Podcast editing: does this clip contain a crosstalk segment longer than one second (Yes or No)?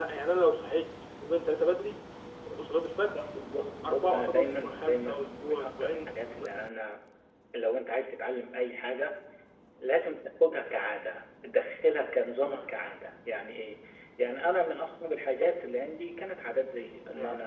Yes